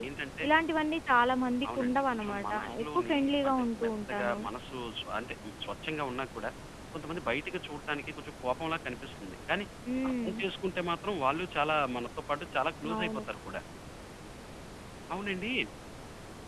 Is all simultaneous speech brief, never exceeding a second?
No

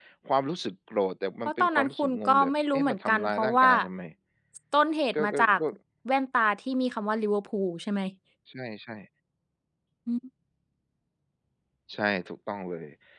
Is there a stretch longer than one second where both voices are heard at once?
Yes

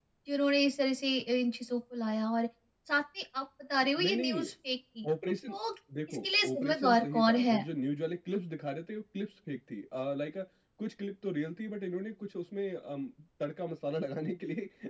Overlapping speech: Yes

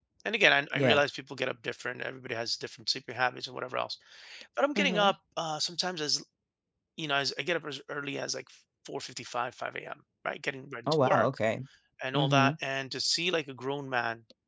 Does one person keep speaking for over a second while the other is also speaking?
No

